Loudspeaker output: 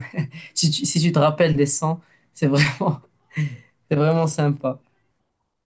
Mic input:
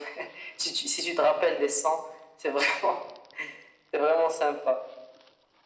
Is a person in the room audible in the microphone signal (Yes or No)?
No